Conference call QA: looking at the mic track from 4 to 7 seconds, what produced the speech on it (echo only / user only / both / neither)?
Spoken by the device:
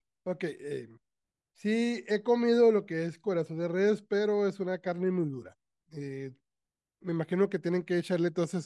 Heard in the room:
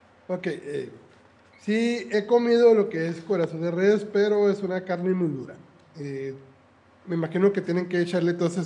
echo only